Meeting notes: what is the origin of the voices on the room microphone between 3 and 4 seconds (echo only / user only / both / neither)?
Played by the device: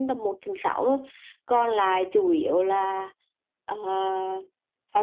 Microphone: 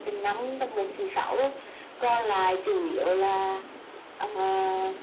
echo only